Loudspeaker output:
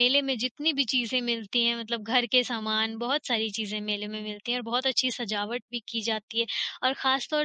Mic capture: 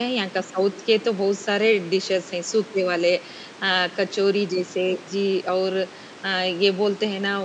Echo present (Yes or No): No